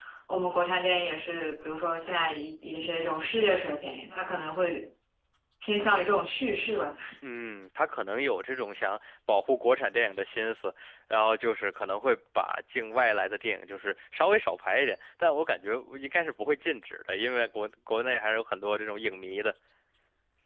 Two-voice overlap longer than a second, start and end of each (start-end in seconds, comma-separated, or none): none